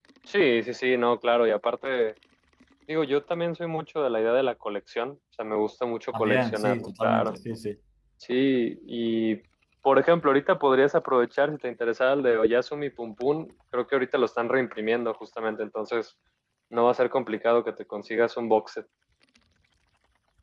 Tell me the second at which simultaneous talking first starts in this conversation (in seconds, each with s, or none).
6.1 s